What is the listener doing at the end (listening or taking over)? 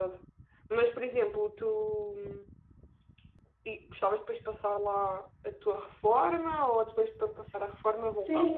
taking over